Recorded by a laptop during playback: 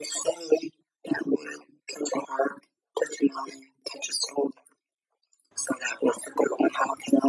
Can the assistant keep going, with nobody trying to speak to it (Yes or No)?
Yes